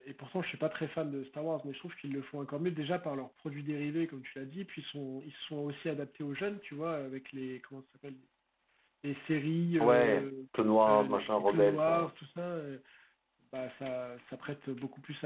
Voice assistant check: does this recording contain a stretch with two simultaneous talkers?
Yes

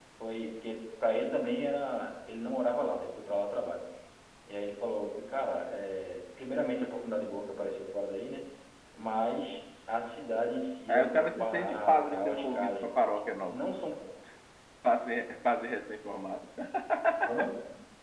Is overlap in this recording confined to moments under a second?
No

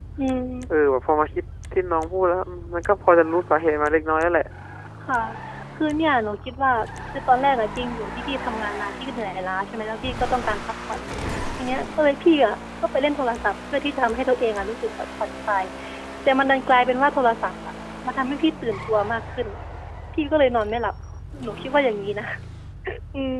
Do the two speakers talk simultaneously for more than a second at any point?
No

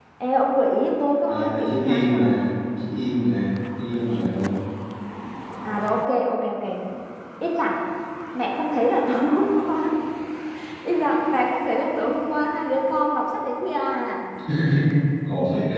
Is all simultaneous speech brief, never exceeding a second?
No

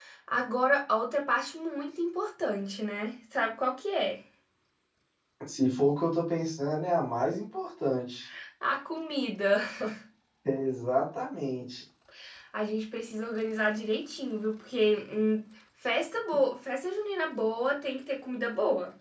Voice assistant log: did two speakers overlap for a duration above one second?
No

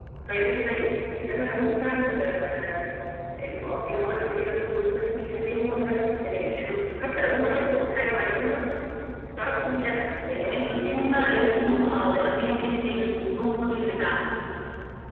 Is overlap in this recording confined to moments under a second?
No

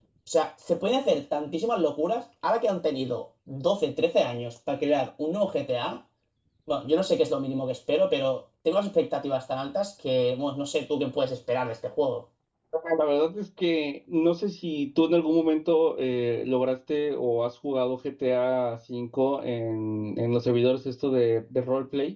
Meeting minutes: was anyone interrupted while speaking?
No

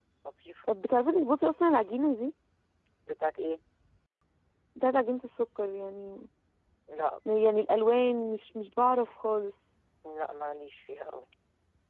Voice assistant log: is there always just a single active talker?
Yes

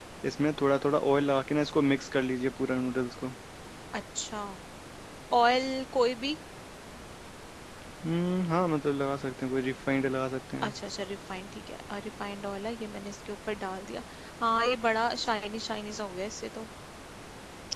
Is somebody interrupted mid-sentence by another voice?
No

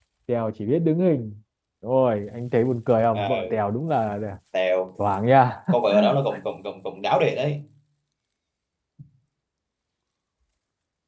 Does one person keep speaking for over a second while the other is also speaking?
No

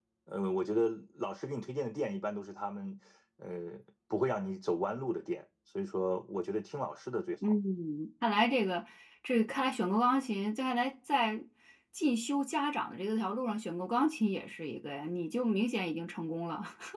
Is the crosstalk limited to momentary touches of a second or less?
Yes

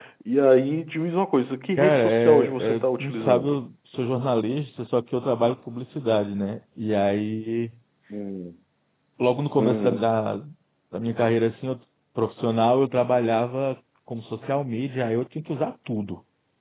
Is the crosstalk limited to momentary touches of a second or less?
No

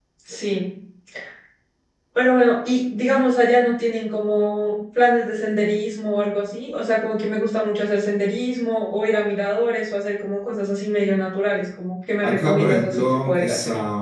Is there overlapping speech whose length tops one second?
Yes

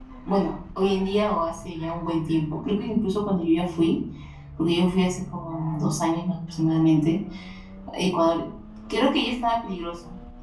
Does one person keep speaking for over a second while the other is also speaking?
No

